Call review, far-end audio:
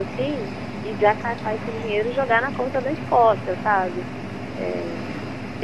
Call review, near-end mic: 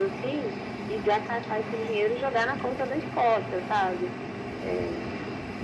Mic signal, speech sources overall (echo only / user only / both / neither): echo only